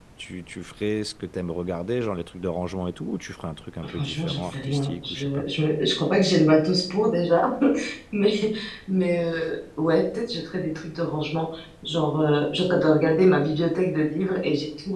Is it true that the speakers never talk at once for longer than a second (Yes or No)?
No